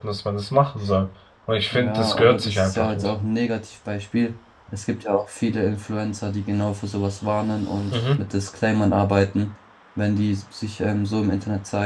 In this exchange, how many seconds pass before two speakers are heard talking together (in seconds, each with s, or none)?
1.7 s